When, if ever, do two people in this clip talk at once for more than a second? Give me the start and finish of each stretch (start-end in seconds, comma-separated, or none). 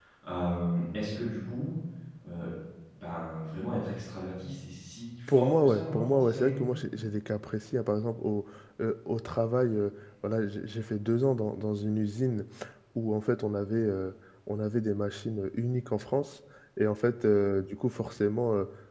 5.3-6.7